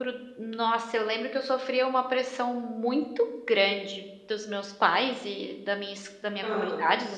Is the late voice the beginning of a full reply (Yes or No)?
No